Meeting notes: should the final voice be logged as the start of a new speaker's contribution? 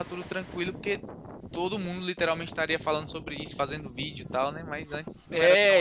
Yes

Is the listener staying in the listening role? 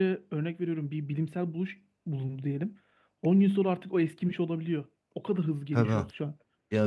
No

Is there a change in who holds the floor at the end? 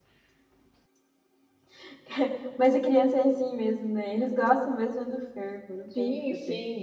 Yes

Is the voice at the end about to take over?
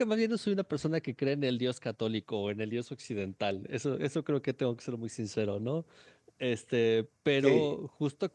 No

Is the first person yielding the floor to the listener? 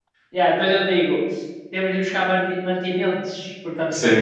Yes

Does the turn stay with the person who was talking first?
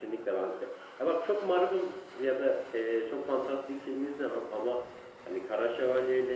Yes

